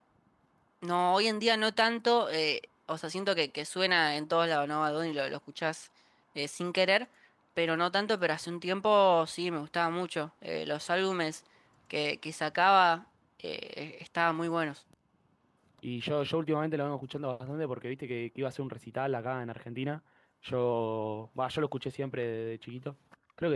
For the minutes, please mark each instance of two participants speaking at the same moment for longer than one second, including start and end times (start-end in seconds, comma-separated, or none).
none